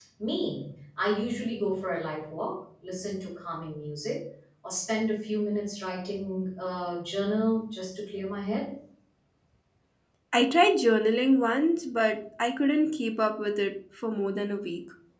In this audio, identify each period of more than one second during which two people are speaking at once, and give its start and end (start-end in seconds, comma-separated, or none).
none